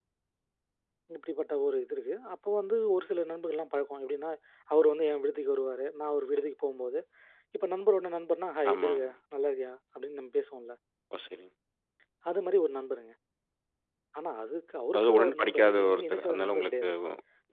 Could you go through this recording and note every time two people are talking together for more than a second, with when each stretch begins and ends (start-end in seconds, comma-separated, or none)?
14.9-16.8